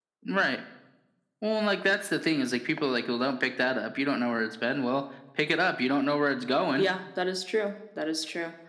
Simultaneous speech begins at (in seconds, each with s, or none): none